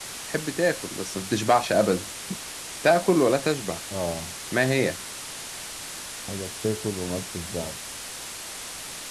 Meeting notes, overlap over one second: none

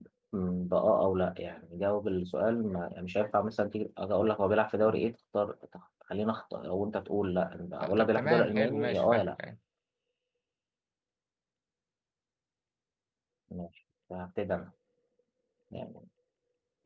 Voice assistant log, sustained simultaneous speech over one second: present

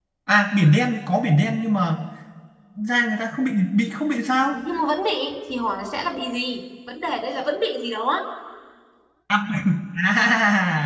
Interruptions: none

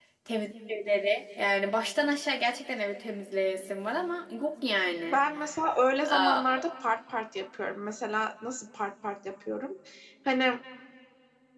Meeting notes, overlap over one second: none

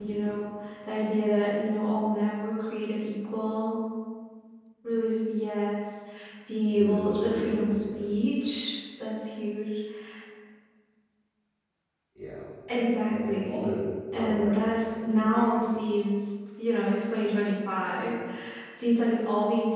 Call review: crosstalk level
present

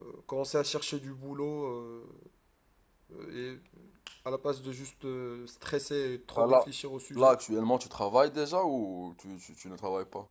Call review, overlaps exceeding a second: none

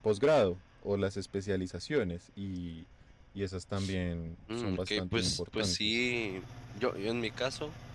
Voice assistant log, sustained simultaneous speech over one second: present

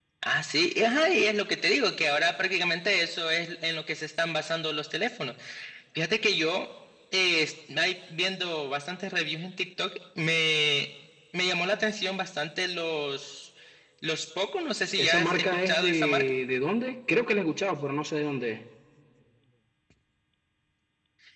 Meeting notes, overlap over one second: present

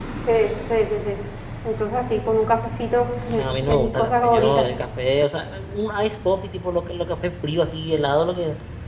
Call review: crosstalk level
present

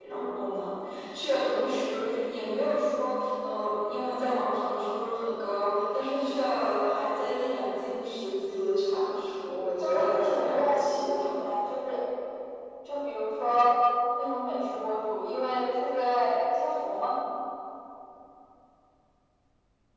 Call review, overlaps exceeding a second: present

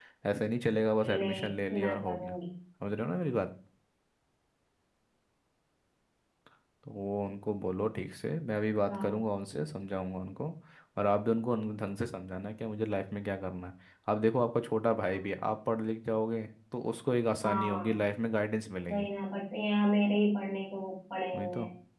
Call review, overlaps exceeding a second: present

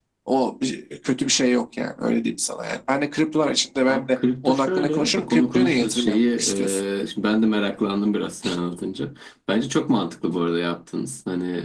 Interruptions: present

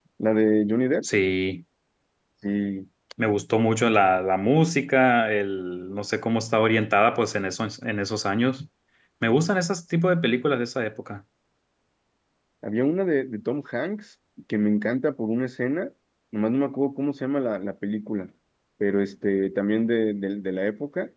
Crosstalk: none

